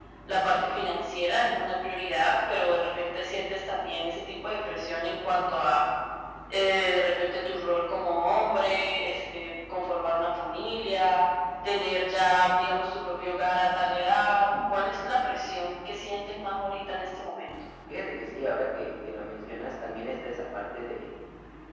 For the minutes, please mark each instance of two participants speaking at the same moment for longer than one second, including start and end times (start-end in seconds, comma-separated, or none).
none